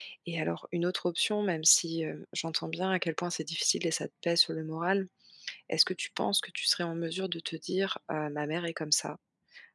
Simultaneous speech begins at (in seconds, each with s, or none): none